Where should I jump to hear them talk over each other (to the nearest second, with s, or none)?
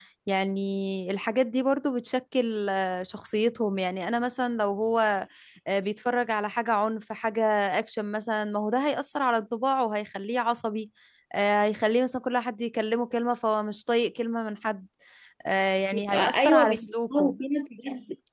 16 s